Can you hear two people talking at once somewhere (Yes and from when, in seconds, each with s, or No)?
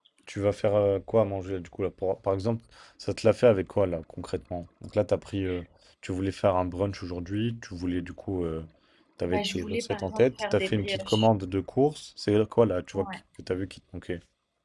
Yes, from 9.2 s